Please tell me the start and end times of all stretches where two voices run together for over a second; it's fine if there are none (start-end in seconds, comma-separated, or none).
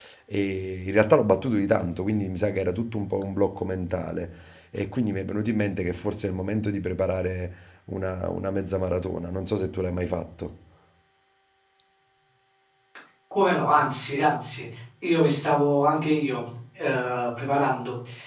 none